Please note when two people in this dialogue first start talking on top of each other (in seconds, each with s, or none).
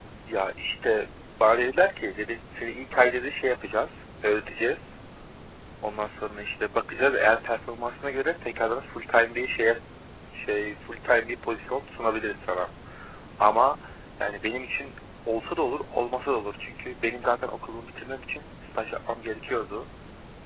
none